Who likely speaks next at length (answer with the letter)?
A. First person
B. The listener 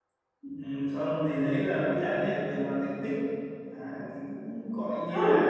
A